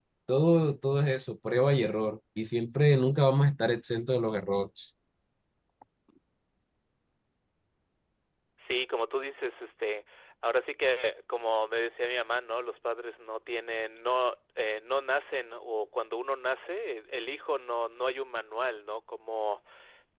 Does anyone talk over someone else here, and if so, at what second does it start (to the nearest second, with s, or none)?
none